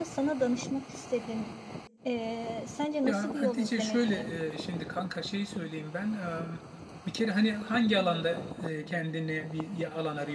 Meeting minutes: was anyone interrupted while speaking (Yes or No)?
Yes